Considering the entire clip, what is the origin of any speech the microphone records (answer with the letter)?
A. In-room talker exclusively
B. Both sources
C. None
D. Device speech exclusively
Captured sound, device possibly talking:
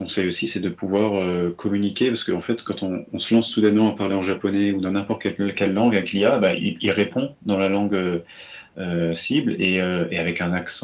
D